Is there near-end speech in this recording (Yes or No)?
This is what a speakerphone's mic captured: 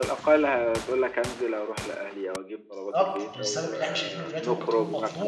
Yes